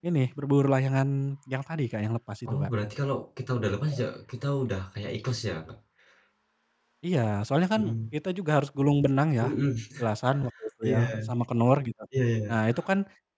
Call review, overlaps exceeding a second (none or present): none